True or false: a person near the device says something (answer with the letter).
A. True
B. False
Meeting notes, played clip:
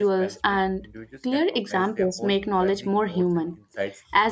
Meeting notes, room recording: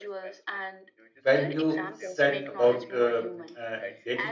A